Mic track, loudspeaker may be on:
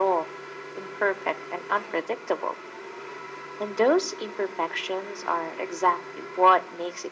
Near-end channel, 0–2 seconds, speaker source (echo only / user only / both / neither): echo only